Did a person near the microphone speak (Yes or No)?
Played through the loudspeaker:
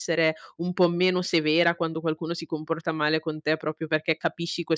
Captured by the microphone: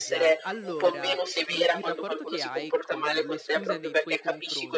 Yes